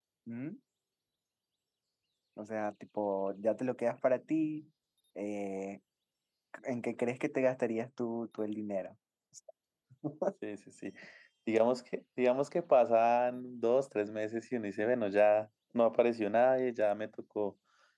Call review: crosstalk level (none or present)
none